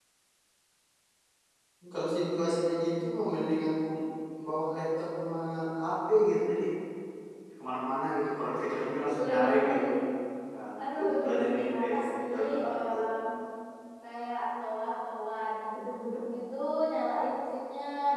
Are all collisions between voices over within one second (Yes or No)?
No